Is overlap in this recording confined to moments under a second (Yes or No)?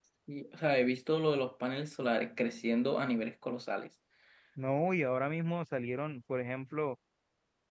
Yes